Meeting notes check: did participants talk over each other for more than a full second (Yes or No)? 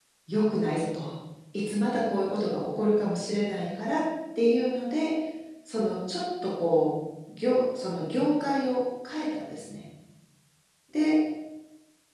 No